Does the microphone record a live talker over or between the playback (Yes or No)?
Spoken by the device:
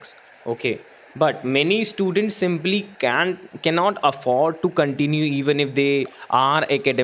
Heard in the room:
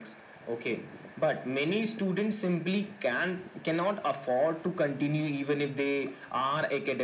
No